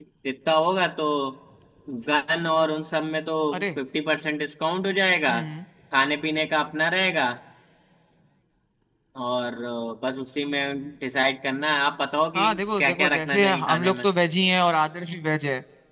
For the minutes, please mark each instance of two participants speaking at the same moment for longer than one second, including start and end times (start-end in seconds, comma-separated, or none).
12.3-14.1